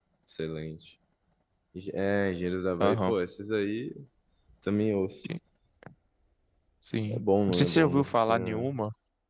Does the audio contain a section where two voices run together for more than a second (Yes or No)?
Yes